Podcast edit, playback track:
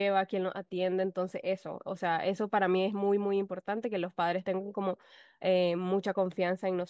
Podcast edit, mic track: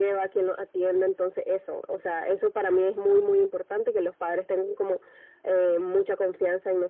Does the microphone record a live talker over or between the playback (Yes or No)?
No